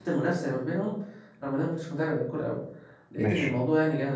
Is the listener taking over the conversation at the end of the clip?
No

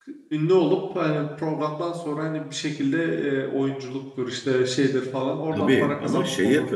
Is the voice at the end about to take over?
Yes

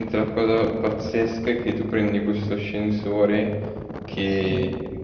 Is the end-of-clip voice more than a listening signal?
No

